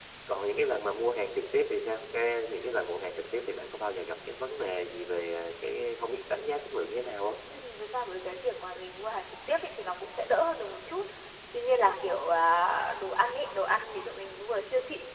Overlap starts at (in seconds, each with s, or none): none